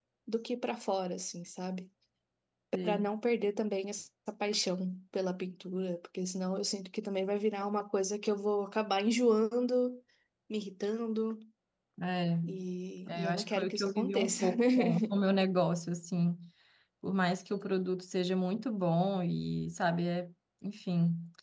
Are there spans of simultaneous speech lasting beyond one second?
Yes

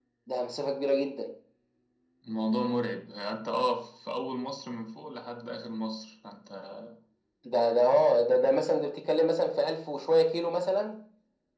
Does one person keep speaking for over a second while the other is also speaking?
No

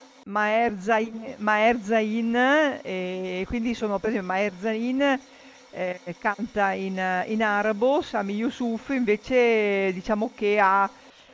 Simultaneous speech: No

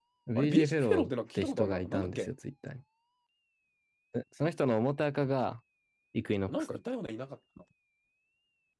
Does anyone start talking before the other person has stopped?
Yes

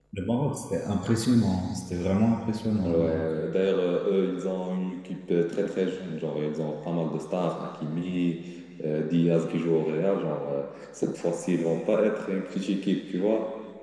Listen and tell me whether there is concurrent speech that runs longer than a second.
No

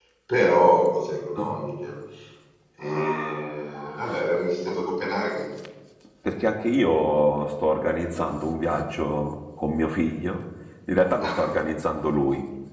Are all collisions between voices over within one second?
Yes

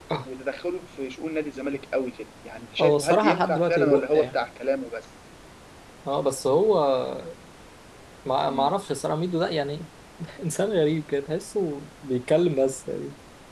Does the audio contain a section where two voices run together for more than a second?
Yes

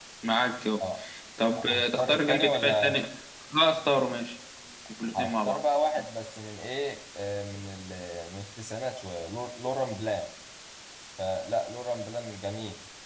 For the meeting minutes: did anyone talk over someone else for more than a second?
Yes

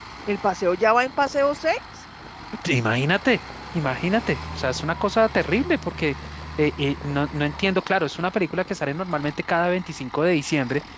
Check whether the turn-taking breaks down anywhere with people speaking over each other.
No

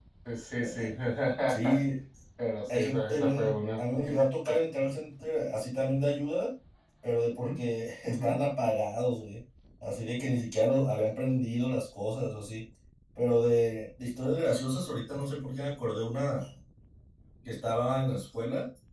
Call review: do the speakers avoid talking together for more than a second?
No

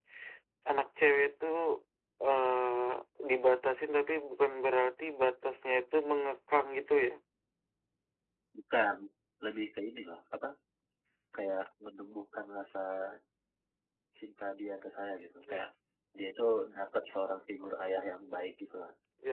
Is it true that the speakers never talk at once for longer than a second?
Yes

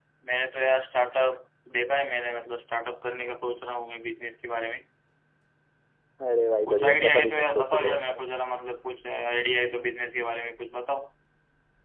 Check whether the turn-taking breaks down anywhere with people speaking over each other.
Yes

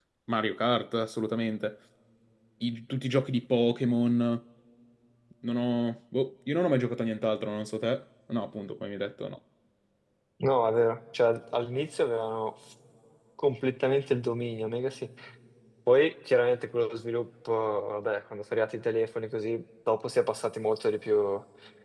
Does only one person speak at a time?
Yes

